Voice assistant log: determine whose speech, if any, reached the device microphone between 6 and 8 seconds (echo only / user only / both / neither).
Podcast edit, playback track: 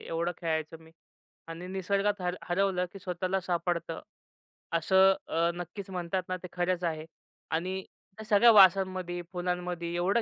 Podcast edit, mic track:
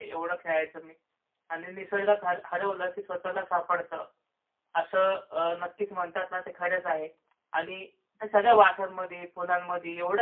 echo only